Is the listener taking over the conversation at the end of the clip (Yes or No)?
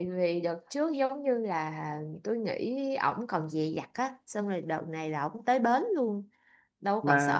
Yes